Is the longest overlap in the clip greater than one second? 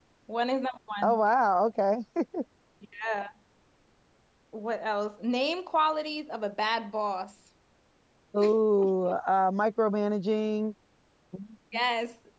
No

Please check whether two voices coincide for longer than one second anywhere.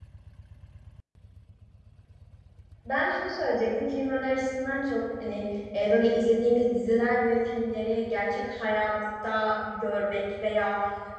No

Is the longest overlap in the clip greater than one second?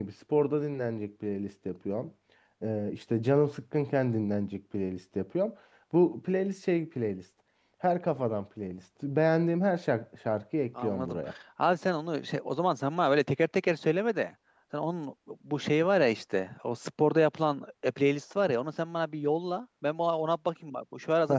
No

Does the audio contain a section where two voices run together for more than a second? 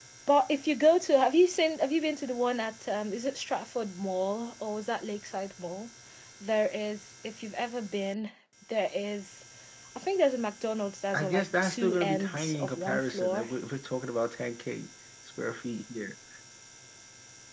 Yes, from 11.1 s

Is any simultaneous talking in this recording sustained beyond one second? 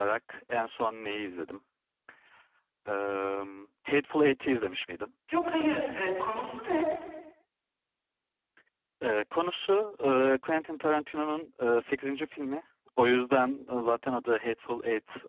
No

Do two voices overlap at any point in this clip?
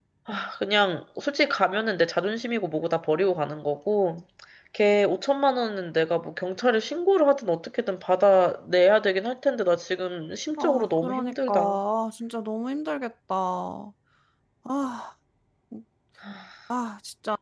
Yes, from 10.6 s

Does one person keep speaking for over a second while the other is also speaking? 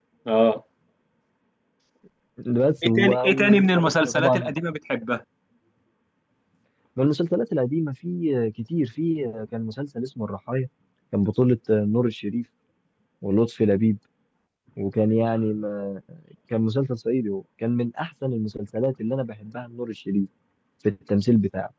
Yes, from 2.8 s

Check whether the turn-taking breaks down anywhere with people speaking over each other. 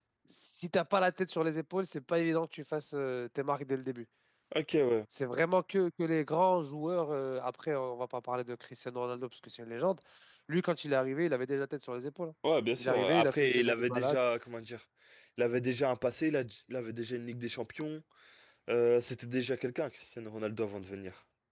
Yes, from 12.8 s

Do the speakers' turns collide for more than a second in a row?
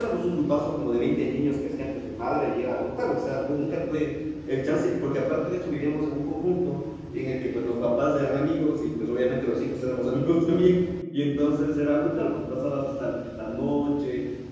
No

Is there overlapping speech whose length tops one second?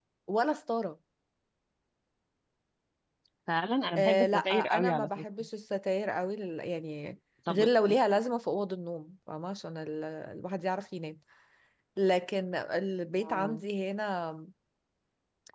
Yes, from 4.0 s

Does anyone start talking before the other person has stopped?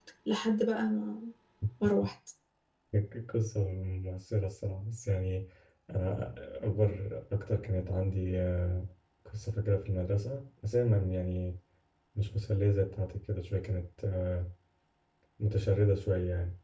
No

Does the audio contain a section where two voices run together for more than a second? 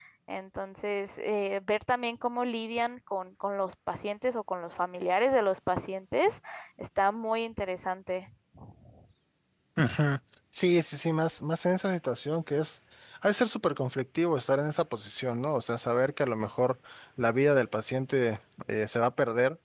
No

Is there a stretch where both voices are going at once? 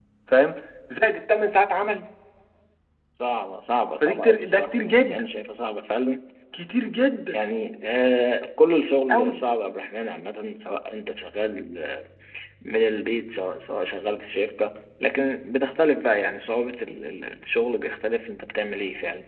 Yes, from 4.0 s

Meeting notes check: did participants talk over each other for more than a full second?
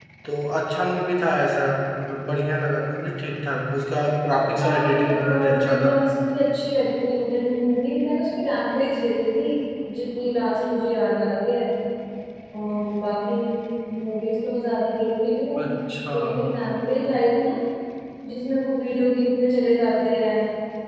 Yes, from 4.6 s

